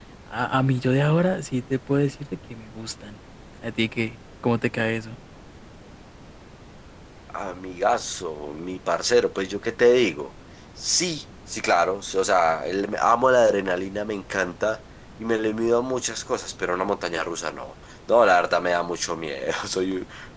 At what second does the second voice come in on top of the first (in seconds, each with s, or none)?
none